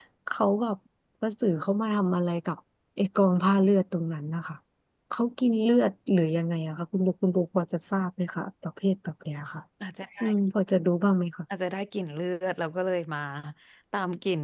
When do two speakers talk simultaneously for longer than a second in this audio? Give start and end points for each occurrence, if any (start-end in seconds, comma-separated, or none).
none